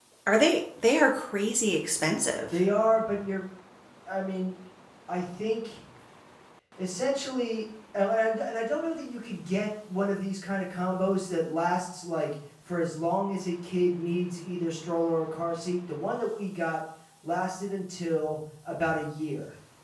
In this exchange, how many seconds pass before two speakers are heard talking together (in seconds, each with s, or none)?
none